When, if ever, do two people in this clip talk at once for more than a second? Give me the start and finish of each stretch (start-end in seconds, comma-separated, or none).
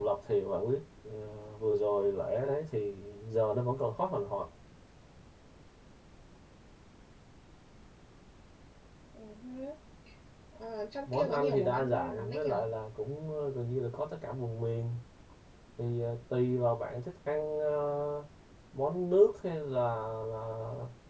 11.1-12.5